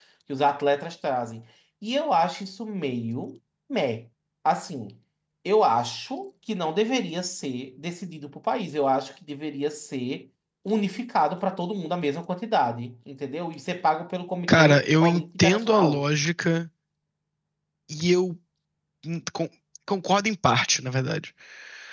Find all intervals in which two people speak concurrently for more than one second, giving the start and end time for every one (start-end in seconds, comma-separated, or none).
14.5-16.0